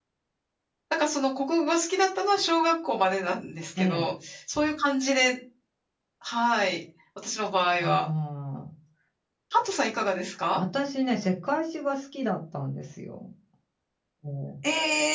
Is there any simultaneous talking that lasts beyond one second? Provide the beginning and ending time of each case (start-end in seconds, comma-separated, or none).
none